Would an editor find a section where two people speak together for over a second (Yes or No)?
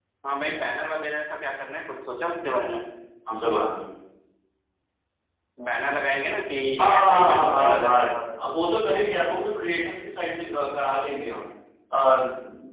Yes